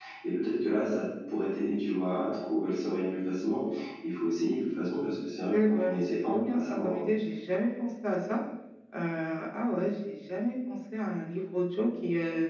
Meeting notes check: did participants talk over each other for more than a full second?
Yes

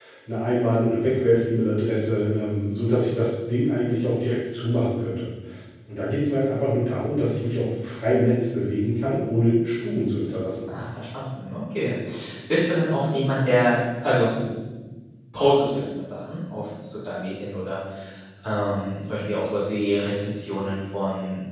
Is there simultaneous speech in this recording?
No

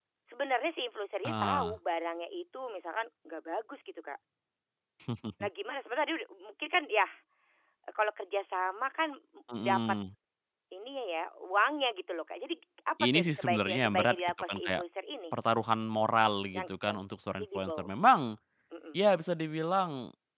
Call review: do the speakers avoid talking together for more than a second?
No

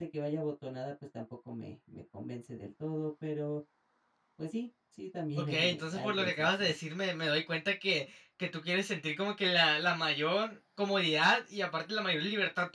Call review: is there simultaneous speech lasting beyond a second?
Yes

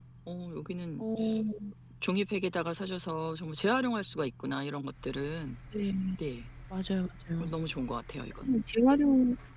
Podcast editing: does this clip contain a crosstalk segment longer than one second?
No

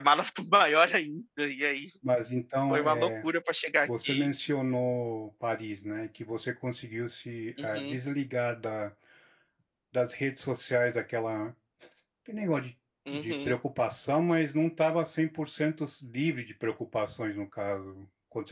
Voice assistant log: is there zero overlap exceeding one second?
Yes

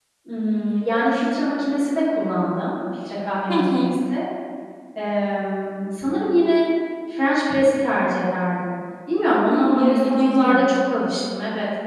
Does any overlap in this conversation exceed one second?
Yes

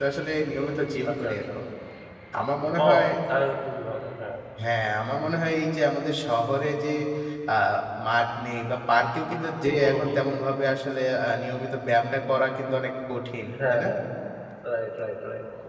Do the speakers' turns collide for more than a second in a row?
No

